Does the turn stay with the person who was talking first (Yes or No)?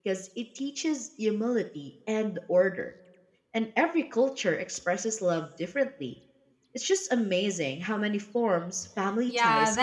No